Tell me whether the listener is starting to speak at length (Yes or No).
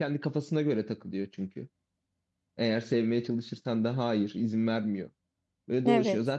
No